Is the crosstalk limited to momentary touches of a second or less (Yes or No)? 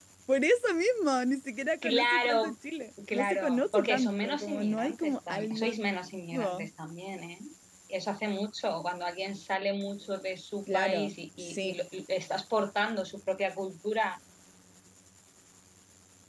No